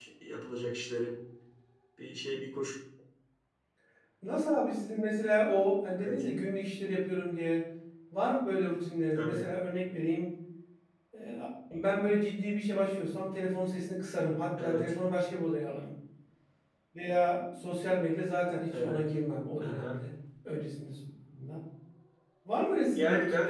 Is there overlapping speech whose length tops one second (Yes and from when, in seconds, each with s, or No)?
No